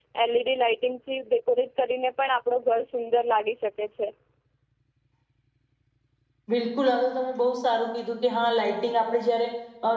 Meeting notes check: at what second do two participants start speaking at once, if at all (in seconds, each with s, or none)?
none